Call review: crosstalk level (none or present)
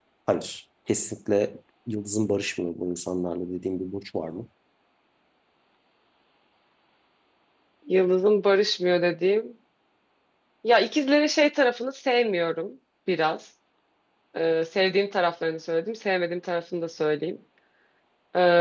none